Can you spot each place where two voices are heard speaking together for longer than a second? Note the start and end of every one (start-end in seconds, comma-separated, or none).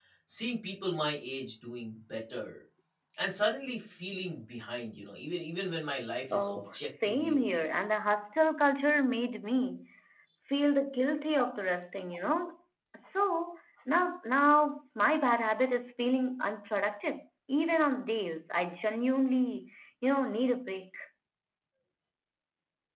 6.3-7.6